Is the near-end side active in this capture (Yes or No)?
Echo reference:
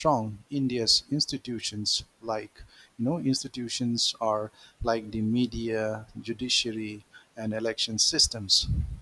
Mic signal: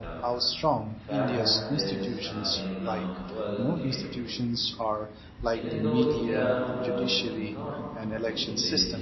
Yes